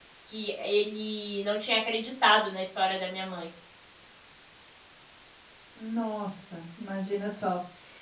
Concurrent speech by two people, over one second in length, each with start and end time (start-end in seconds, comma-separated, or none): none